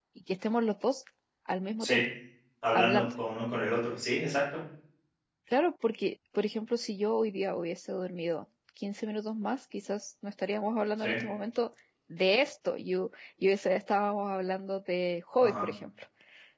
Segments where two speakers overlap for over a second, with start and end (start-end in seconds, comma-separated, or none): none